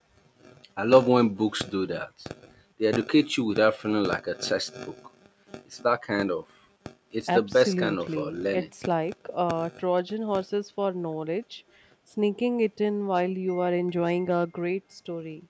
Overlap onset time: 7.3 s

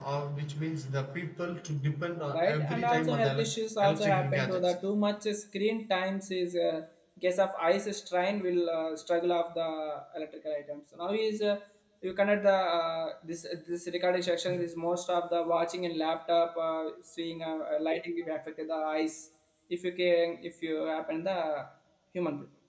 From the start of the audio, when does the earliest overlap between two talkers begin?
2.3 s

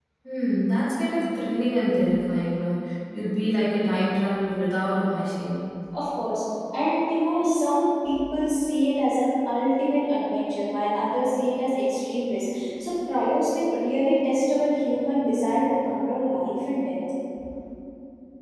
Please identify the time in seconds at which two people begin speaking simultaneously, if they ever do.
none

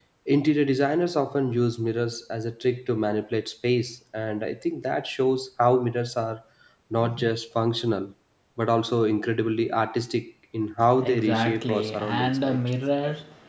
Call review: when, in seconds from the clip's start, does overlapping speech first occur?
10.8 s

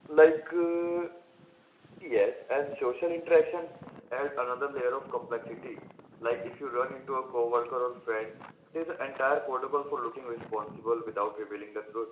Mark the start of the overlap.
none

